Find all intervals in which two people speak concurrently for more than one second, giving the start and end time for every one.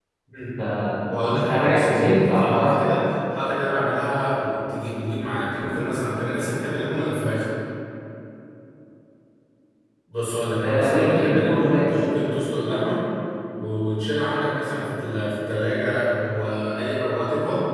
1.1-2.8, 10.6-11.9

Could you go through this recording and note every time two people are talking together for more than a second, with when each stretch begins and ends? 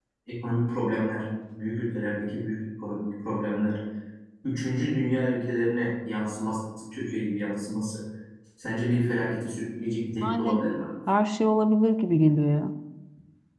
none

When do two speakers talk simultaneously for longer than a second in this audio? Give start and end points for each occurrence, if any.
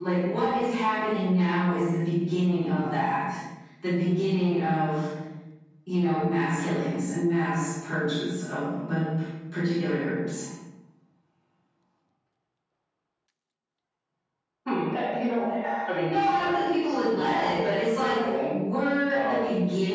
16.1-17.5

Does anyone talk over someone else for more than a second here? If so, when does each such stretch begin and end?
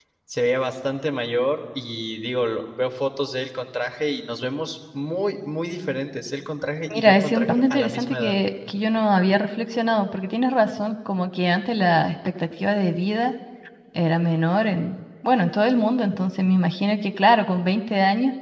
6.9-8.4

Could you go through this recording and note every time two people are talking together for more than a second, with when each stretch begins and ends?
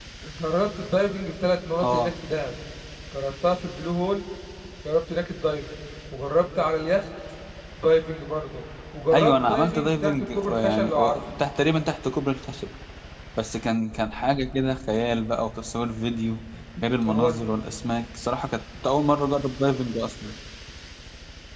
9.1-11.2

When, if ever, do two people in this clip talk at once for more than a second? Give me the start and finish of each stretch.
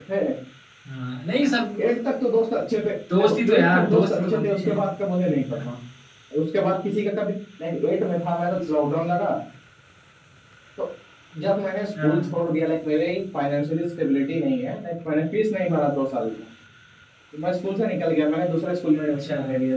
3.2-4.8

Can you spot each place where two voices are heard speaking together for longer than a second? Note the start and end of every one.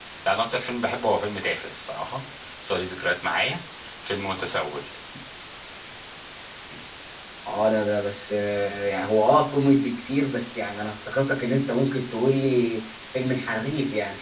none

